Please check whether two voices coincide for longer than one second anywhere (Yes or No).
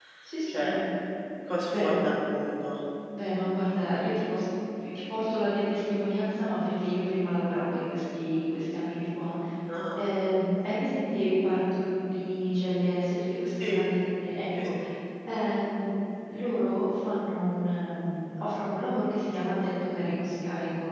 No